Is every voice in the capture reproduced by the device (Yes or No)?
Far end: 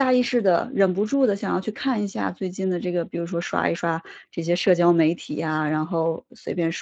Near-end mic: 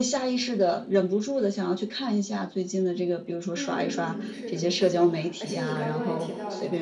No